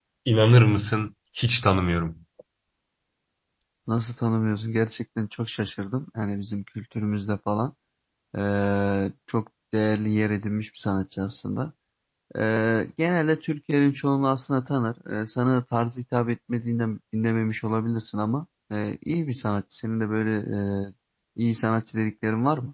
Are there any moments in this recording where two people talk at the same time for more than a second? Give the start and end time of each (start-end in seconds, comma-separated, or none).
none